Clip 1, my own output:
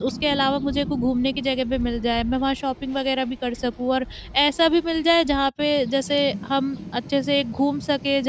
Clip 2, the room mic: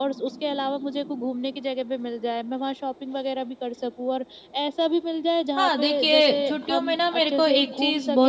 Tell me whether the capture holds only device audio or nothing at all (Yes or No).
No